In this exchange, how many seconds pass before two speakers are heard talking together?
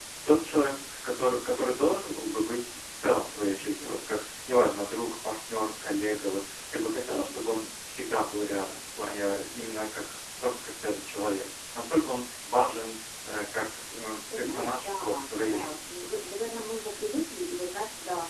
14 s

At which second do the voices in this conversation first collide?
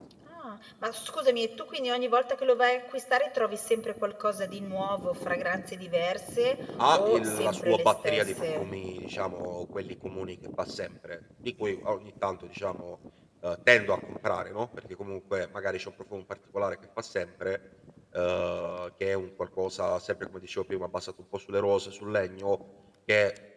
7 s

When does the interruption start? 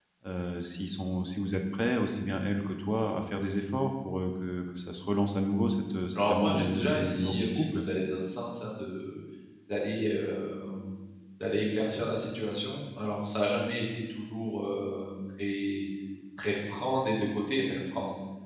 6 s

